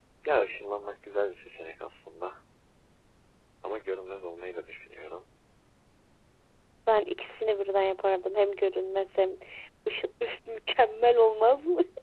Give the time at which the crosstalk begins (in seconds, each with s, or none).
none